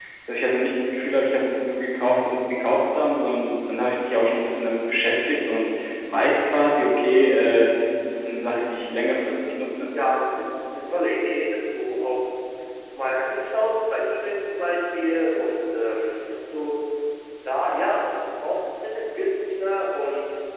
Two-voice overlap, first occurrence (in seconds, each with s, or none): none